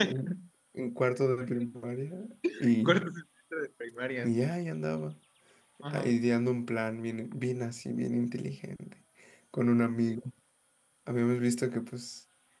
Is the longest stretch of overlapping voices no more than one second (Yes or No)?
Yes